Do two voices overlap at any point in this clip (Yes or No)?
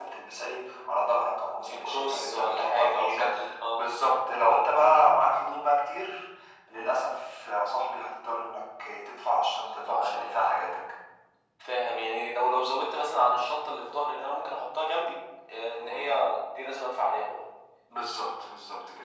Yes